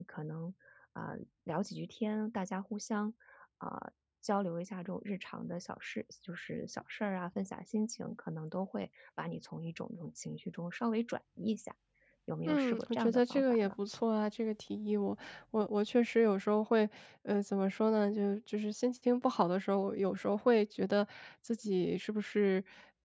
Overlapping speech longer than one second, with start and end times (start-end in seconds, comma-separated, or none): 12.5-13.7